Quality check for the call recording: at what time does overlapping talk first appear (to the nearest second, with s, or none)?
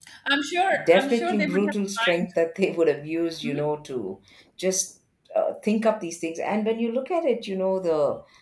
1 s